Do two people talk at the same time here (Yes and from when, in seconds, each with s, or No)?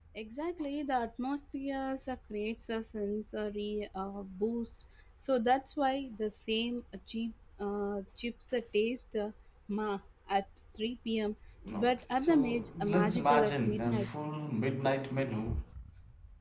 Yes, from 11.7 s